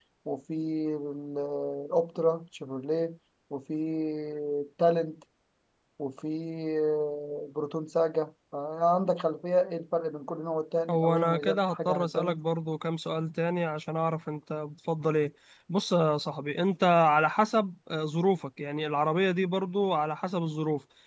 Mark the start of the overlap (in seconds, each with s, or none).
10.9 s